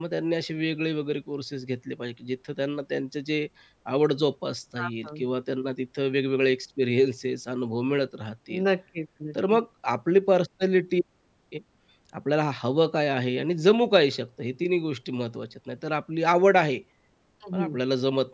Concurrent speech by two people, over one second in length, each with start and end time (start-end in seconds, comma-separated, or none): none